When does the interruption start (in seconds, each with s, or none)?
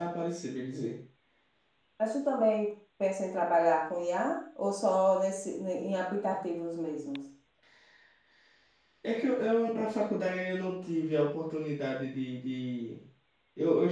none